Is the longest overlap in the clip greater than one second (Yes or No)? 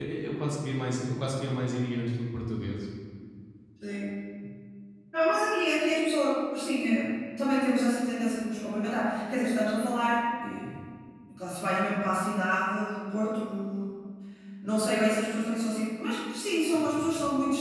No